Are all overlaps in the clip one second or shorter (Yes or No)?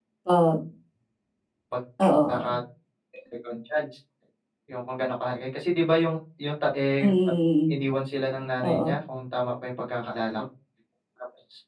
Yes